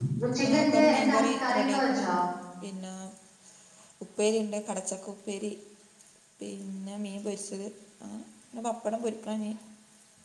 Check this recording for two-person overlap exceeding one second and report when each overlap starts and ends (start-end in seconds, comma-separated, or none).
0.5-2.1